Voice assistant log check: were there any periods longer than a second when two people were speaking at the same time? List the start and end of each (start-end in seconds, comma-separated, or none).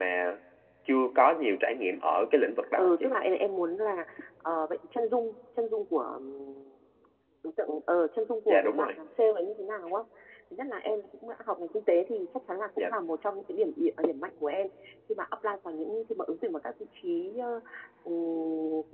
none